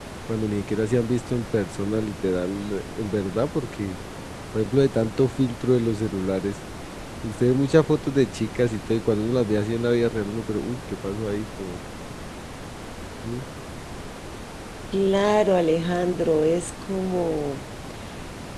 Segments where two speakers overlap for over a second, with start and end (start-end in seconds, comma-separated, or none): none